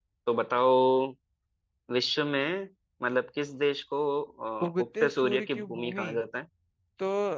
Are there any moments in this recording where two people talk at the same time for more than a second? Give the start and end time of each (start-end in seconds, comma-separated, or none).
4.6-6.0